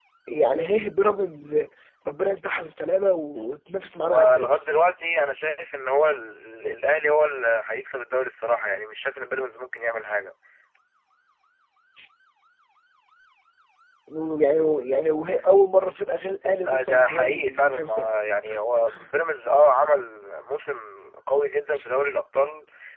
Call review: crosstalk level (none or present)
present